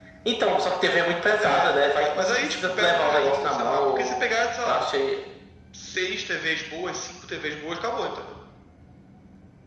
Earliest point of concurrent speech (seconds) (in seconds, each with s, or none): 1.4 s